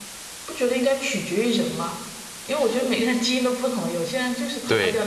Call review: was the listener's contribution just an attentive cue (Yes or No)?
No